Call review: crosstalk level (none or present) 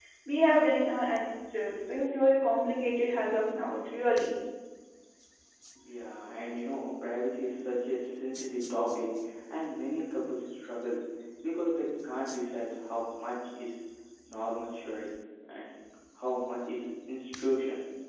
none